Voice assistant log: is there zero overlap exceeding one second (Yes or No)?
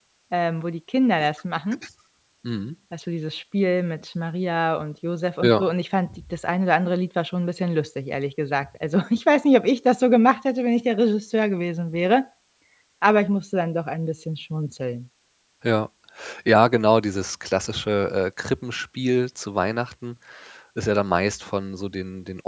Yes